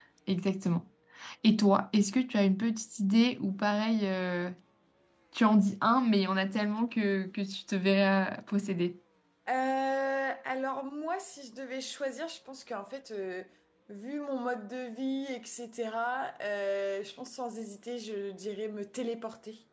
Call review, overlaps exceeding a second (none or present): none